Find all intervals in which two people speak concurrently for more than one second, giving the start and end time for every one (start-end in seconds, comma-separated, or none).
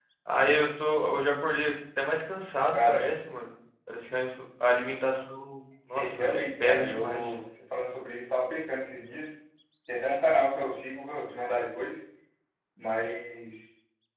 5.9-7.4